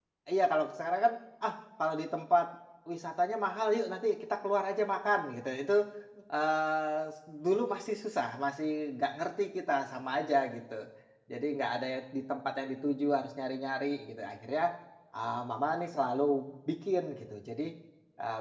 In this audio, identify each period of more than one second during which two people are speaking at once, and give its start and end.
none

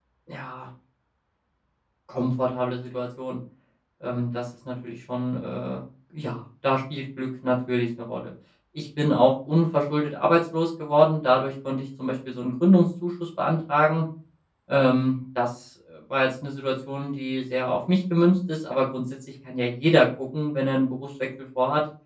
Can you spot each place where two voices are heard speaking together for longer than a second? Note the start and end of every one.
none

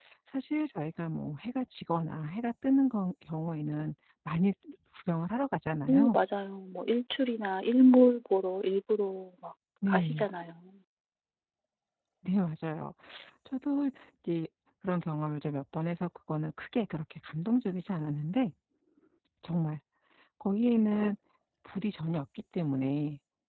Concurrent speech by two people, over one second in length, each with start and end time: none

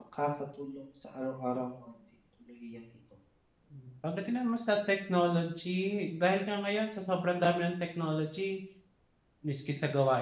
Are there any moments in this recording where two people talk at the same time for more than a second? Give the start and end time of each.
none

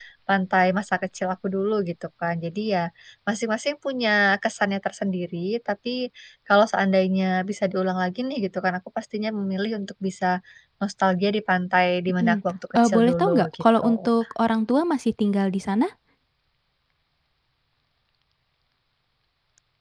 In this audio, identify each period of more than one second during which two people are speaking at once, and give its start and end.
12.8-14.1

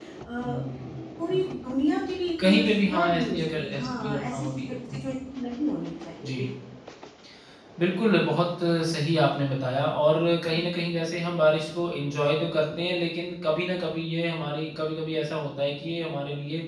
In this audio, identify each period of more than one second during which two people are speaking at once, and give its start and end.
2.4-5.0

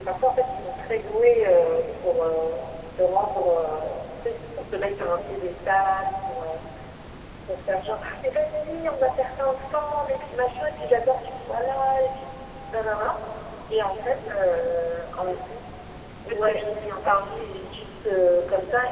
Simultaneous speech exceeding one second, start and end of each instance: 16.2-17.5

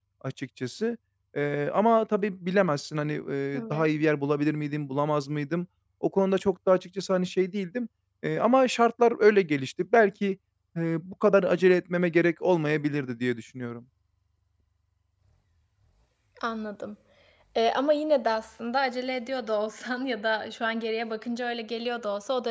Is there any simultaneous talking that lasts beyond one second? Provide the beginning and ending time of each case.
none

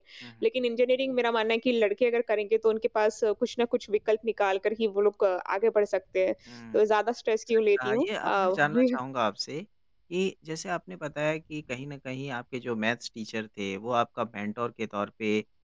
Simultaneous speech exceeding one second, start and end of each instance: 7.5-9.0

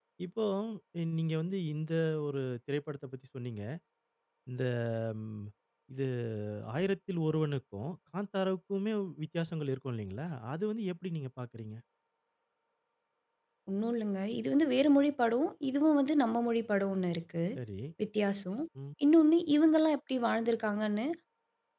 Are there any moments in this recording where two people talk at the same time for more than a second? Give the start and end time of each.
none

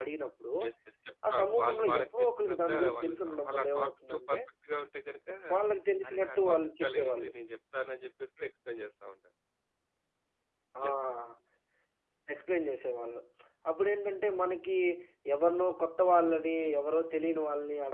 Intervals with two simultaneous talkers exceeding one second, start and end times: 1.3-4.4, 6.1-7.3

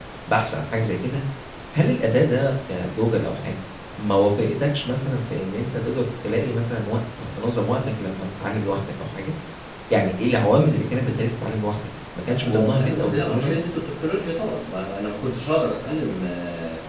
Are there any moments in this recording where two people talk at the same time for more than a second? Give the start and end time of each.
12.3-13.6

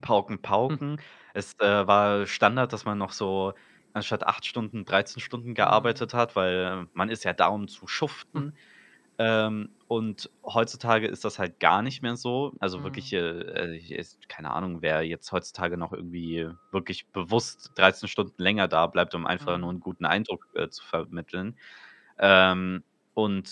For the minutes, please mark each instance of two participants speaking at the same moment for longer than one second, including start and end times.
none

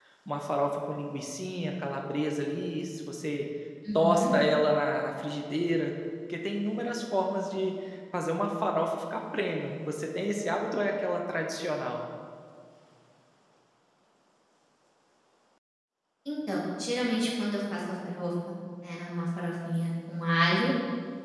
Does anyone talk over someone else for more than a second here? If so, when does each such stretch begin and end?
none

